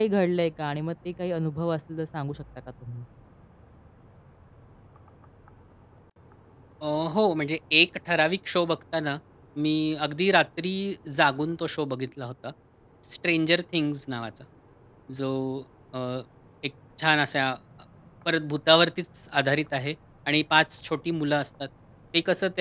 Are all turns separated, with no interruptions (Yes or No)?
Yes